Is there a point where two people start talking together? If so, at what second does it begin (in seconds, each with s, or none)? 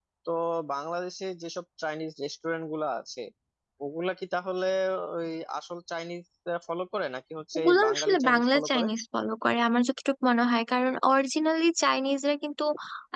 7.5 s